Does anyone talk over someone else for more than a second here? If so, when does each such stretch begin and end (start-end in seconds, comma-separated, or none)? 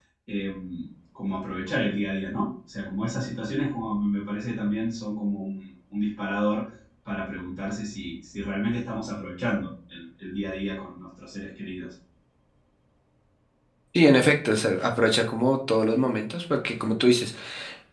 none